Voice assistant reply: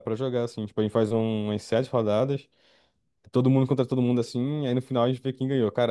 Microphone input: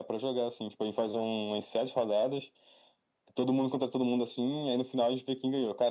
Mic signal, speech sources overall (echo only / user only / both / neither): echo only